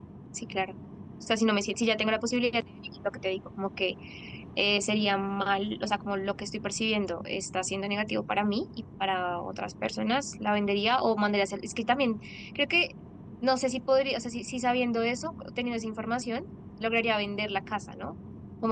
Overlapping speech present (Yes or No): No